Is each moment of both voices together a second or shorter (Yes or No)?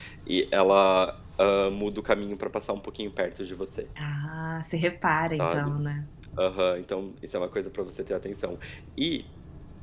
Yes